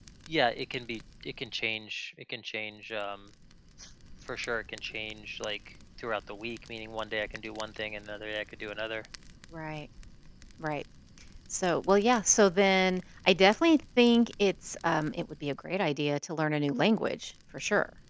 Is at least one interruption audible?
No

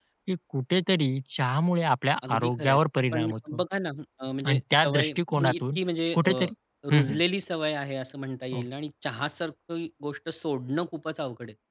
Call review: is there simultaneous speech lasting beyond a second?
Yes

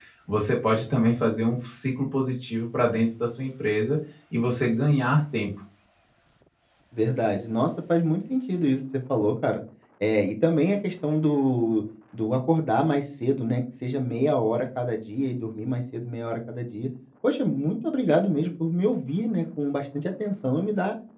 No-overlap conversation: Yes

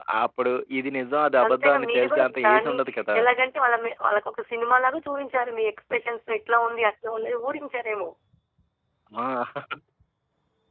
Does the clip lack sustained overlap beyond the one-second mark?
No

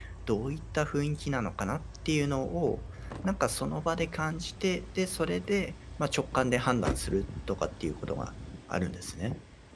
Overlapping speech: No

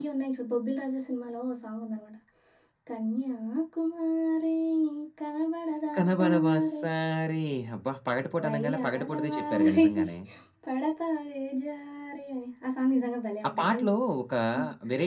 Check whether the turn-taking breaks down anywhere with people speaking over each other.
Yes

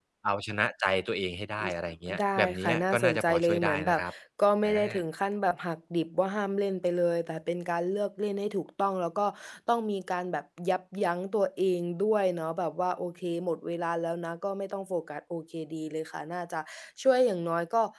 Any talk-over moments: Yes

